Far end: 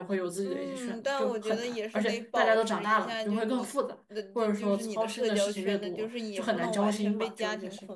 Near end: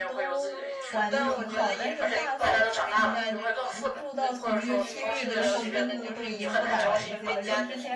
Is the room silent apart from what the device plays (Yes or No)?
No